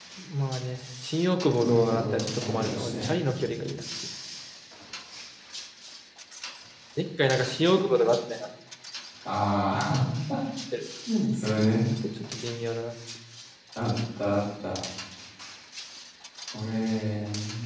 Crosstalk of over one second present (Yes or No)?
Yes